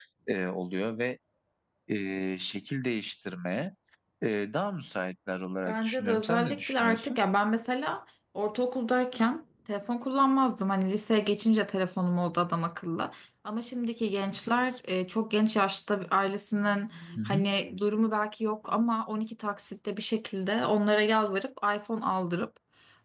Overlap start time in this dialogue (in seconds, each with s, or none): 5.7 s